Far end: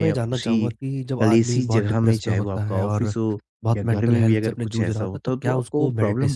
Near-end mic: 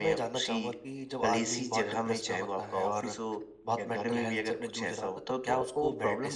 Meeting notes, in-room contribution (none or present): none